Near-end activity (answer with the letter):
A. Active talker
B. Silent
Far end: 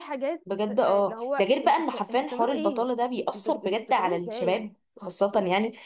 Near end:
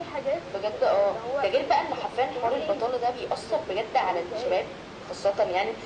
B